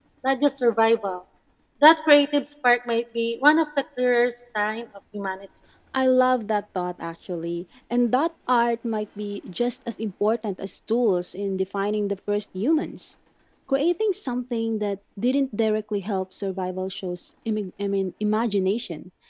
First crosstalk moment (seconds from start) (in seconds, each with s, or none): none